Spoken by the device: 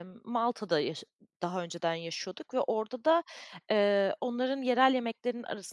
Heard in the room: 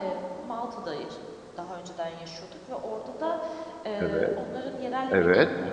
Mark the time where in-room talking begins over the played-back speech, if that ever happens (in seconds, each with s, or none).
4.0 s